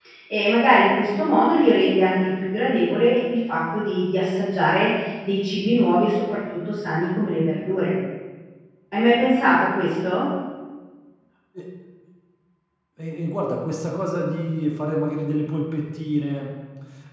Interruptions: none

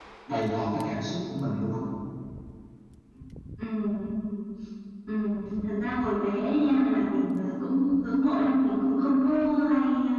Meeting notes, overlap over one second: none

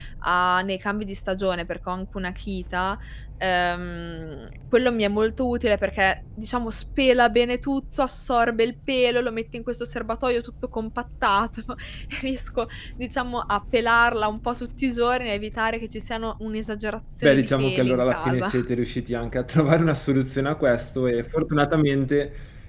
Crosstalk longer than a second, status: present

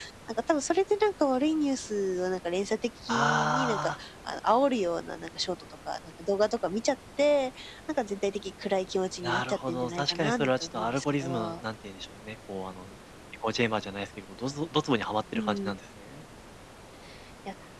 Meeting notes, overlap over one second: present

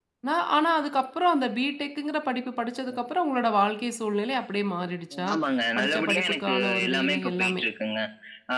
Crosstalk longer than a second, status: present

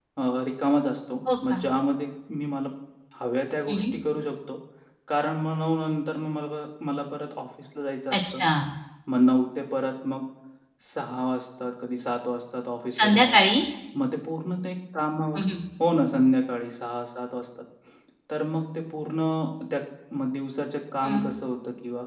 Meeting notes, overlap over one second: none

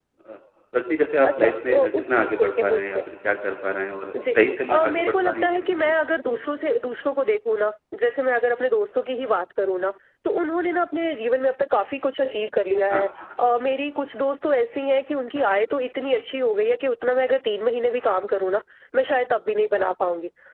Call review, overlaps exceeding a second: present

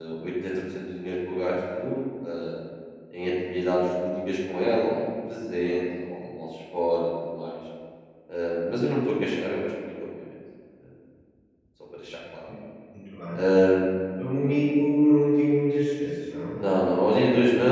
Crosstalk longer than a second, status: none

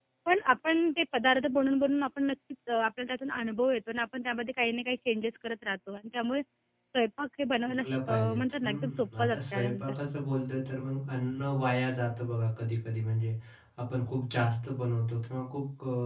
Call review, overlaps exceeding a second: present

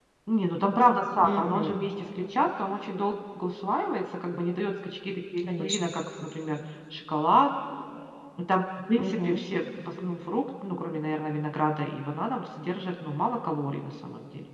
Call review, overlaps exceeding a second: none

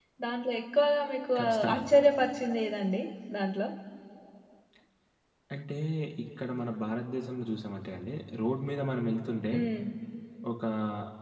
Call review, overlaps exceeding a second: none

